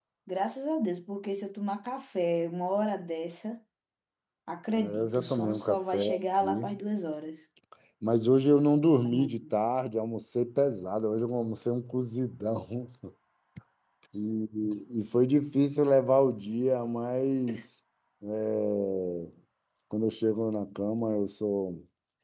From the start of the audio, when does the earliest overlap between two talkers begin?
5 s

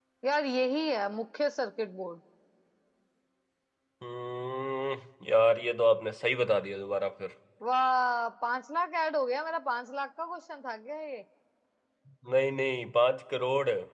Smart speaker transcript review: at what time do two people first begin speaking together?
none

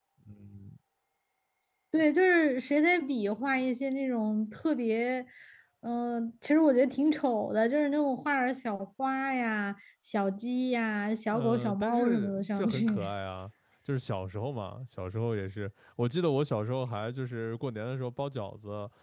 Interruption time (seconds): 11 s

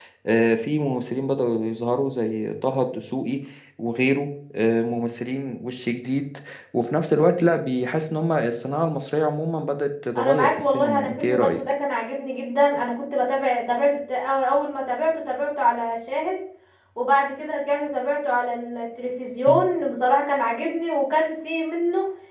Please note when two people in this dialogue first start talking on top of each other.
10 s

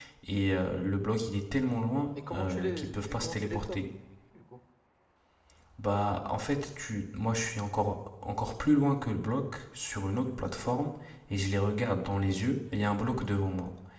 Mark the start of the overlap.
2 s

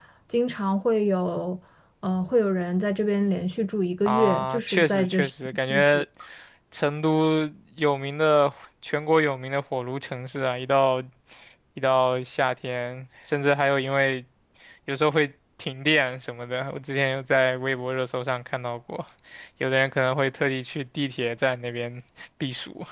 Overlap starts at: 4 s

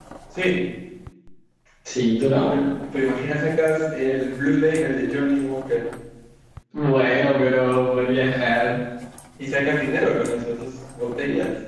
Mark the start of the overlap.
none

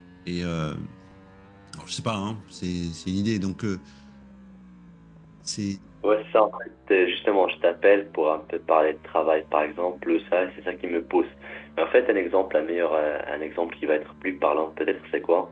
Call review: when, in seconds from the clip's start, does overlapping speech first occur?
none

